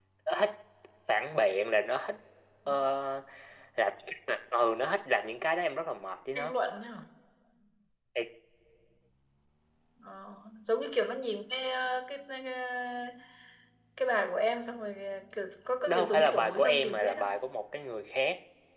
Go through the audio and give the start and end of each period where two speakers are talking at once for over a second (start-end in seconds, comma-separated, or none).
15.9-17.3